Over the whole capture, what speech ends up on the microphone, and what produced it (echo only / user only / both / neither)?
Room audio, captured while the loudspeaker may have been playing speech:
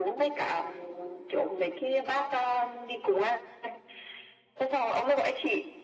echo only